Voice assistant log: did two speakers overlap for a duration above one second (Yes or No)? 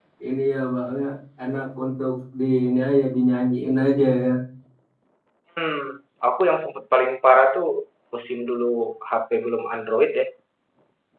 No